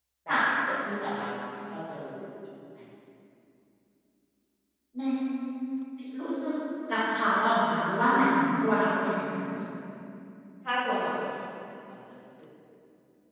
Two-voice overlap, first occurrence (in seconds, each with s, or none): none